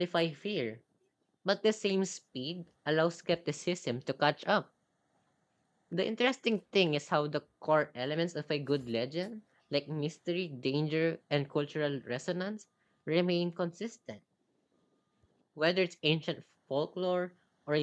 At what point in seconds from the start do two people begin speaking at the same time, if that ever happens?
none

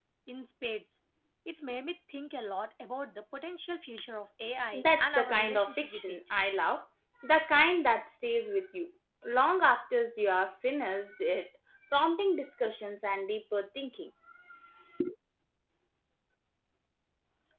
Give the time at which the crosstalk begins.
4.7 s

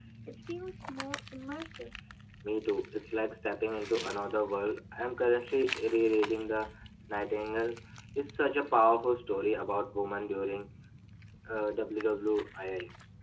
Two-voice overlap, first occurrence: none

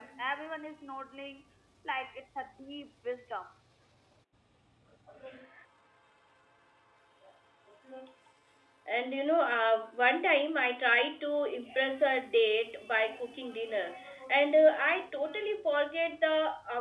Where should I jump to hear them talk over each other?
none

